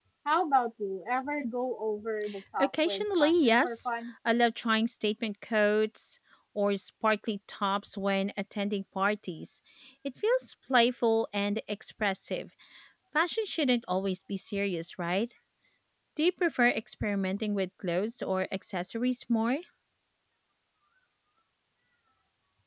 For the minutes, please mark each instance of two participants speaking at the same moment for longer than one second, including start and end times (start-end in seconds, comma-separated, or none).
2.6-3.9